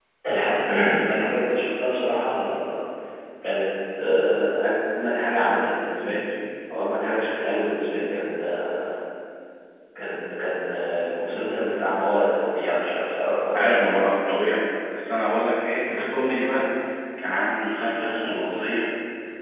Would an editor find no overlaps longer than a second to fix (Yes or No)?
Yes